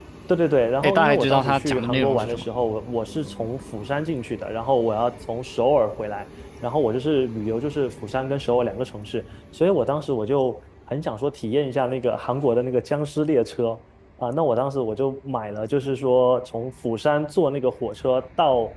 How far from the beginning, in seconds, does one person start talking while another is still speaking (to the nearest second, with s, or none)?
1 s